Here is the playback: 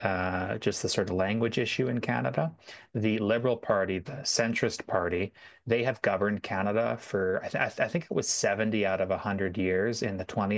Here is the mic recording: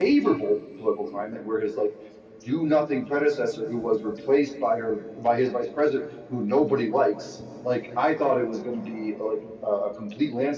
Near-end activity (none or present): present